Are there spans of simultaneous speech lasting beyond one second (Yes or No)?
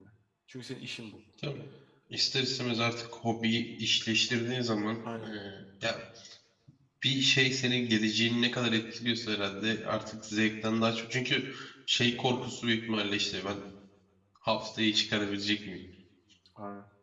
No